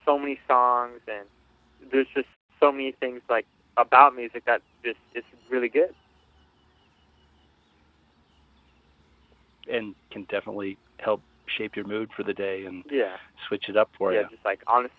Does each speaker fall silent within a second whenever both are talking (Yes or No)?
Yes